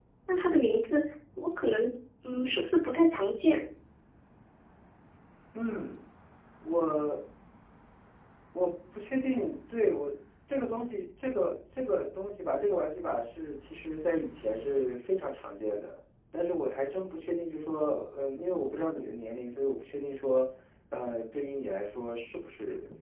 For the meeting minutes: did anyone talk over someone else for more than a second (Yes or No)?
No